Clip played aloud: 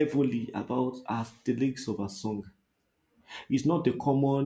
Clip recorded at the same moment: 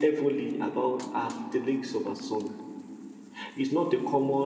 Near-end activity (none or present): none